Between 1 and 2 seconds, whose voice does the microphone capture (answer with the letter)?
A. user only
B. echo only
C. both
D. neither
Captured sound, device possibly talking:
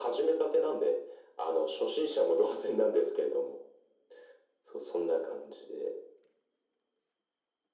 B